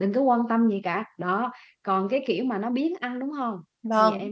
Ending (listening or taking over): taking over